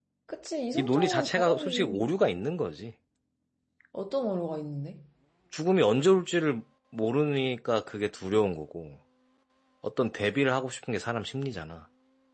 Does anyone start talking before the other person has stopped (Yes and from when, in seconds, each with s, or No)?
Yes, from 0.7 s